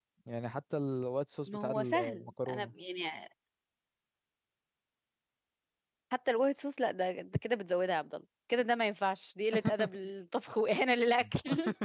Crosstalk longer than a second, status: present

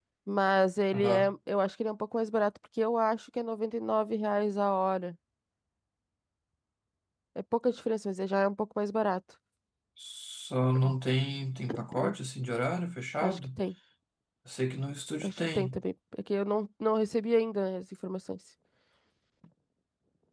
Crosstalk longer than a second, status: none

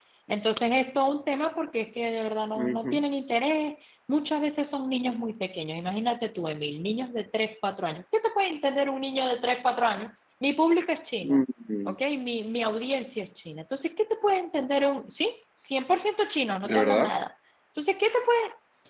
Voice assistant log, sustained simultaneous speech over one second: none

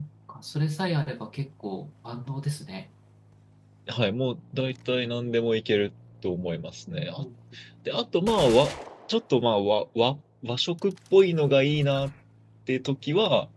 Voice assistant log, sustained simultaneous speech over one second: none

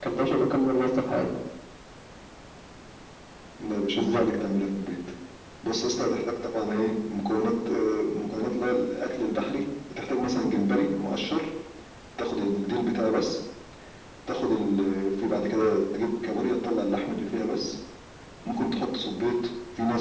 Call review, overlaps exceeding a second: none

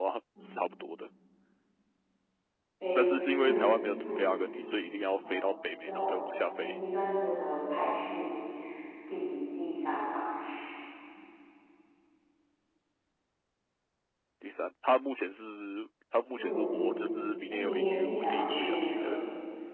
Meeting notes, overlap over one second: present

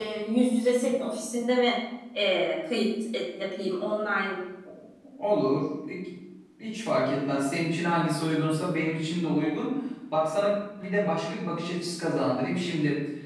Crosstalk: none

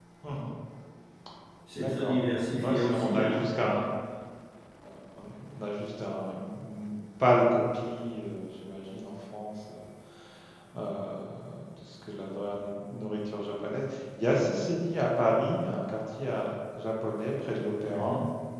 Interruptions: present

